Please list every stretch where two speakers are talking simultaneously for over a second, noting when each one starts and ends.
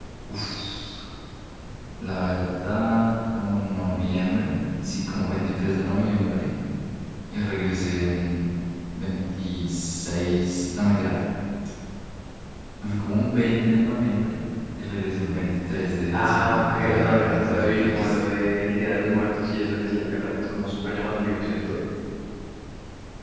16.1-18.2

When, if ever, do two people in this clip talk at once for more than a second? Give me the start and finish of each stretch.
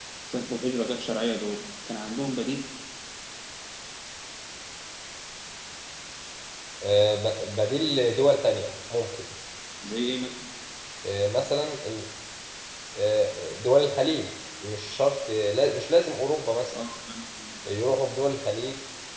none

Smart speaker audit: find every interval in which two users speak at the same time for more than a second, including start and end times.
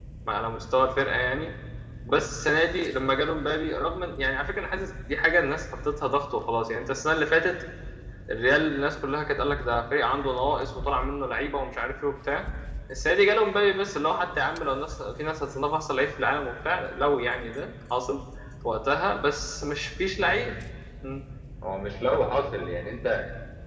none

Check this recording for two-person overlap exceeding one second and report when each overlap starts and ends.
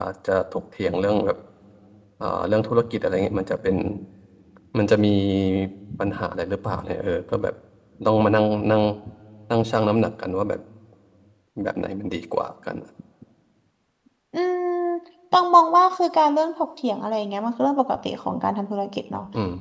none

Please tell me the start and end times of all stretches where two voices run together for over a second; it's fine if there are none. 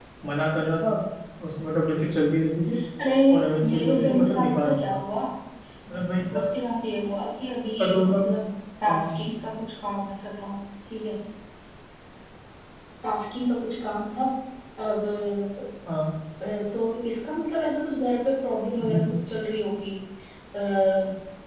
3.7-5.0

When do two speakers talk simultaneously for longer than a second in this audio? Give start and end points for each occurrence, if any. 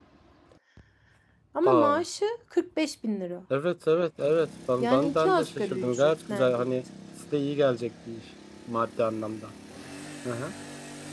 4.8-6.7

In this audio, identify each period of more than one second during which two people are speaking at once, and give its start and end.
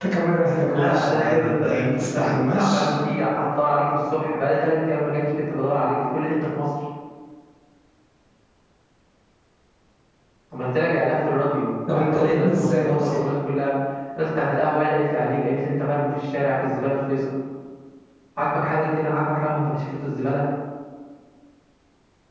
0.7-2.9, 11.9-13.2

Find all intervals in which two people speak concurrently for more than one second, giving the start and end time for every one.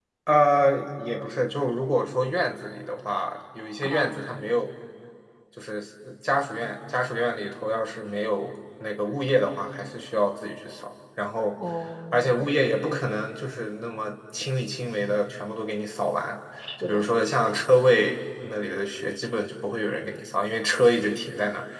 none

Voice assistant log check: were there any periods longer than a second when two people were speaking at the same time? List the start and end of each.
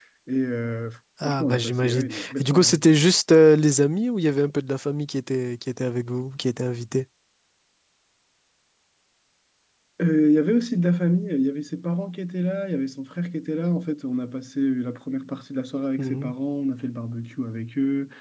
1.2-2.7

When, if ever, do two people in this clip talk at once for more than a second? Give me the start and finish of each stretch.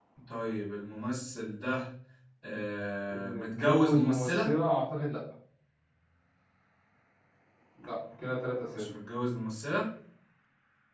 3.1-4.5

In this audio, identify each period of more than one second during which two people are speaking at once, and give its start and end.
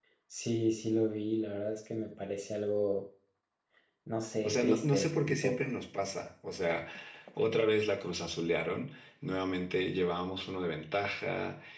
4.4-5.7

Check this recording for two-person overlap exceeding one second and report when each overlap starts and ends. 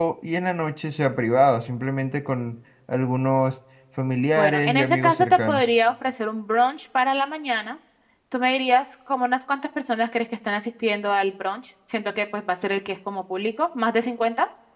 4.4-5.6

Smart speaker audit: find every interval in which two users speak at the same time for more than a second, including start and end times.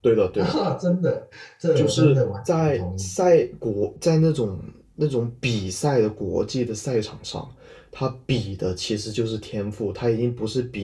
1.8-3.1

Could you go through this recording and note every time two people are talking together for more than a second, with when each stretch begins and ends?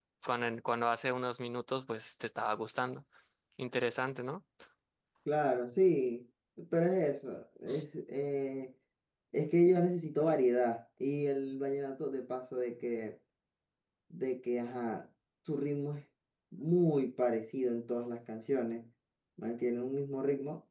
none

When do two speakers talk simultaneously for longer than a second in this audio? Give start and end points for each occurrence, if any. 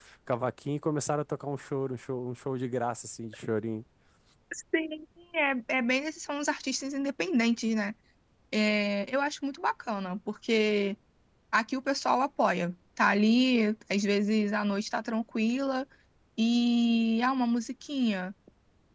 none

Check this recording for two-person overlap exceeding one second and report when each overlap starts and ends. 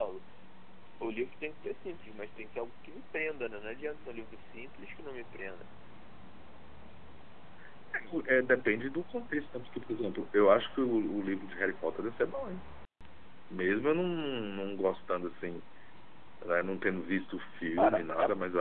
none

